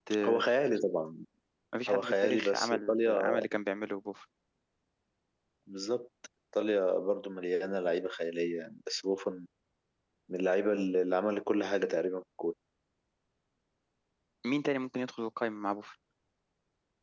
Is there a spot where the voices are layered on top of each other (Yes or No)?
Yes